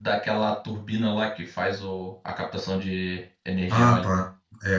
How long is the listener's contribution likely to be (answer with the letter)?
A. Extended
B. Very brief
A